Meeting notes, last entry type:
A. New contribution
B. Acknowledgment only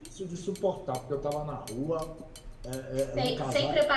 A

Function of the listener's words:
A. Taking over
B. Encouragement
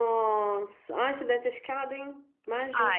A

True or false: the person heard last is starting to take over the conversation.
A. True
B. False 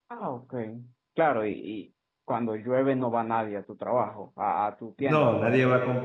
A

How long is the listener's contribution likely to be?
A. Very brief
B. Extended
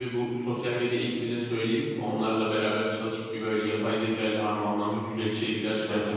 B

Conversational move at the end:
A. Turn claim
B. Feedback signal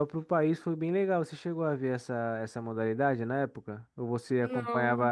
B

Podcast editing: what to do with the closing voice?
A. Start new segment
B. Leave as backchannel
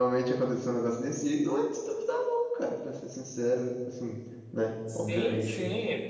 A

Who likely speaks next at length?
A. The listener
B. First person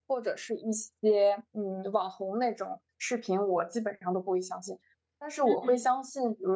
B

